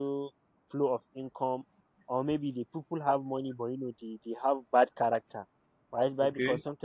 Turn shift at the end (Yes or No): No